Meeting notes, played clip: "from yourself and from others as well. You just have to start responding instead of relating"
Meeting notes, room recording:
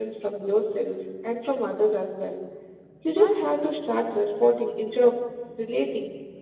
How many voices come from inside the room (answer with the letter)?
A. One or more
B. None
A